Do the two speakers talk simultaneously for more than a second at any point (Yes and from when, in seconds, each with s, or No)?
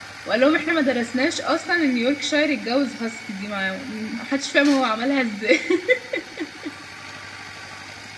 No